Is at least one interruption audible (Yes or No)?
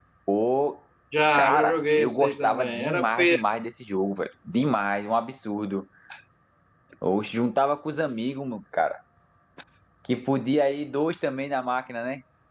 Yes